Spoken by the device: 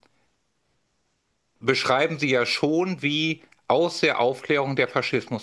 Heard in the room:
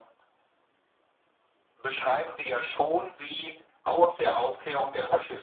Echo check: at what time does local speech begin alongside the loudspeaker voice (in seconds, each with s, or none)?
none